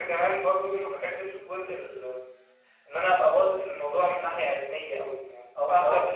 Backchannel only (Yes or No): Yes